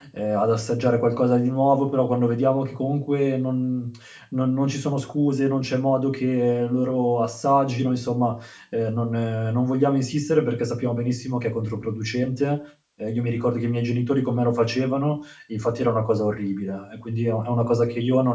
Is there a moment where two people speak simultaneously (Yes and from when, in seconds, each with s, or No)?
No